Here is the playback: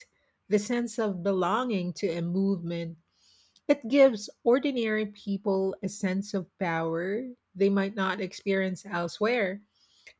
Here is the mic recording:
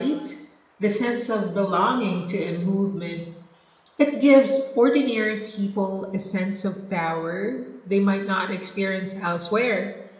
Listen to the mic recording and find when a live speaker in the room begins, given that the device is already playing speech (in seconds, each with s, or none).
none